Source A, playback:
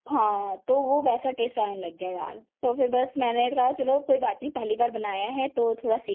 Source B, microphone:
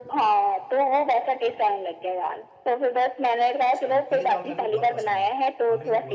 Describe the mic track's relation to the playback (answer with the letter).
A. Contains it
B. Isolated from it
A